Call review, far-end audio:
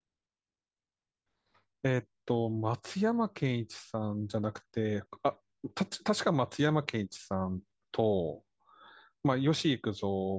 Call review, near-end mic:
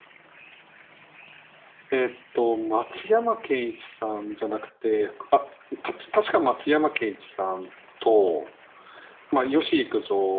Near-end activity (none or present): none